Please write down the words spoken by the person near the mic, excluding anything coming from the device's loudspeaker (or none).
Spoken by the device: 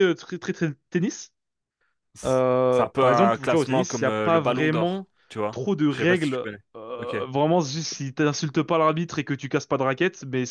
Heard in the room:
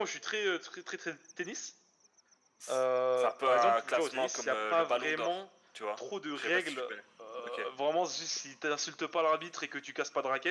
none